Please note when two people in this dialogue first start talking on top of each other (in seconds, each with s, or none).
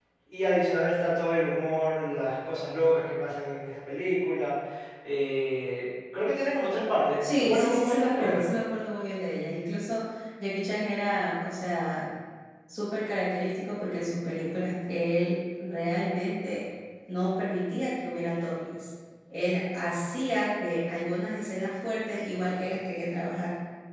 7.2 s